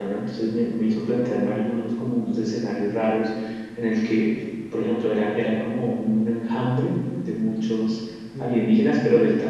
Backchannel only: Yes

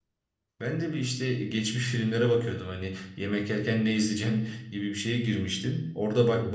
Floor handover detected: No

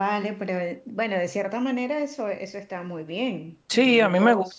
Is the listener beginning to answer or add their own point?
Yes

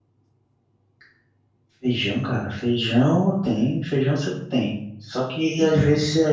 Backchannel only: Yes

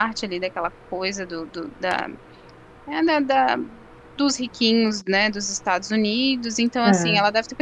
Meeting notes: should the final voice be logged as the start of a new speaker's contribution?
No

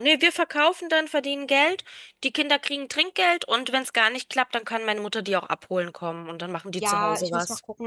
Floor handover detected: Yes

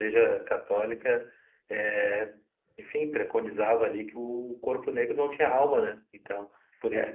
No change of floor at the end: No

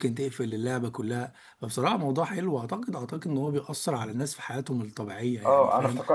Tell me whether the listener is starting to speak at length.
Yes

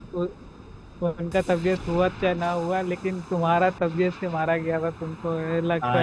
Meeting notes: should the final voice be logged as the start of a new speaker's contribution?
Yes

